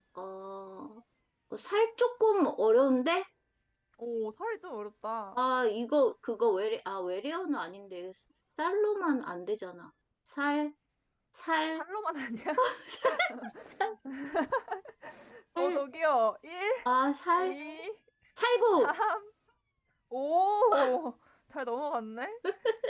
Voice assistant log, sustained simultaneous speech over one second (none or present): none